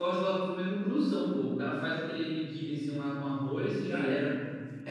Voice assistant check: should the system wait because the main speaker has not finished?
No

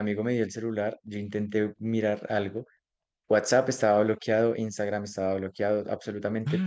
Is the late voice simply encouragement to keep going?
No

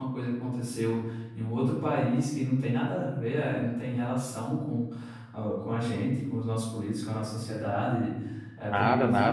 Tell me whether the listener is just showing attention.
No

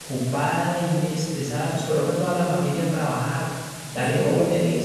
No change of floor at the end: Yes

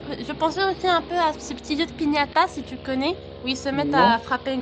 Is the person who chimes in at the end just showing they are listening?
Yes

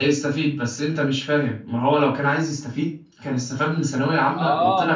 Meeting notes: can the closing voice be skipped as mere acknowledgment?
No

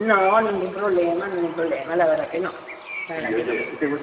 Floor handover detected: Yes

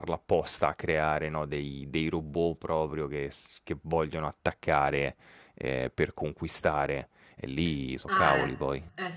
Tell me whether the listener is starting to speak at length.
Yes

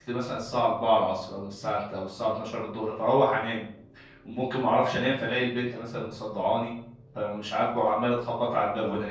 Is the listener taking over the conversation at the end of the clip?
No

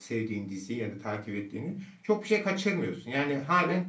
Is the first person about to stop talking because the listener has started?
No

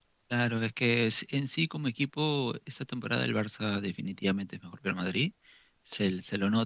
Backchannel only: Yes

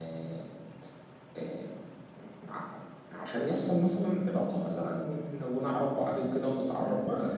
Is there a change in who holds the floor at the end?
Yes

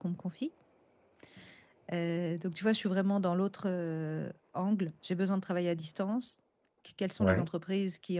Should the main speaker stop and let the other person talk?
No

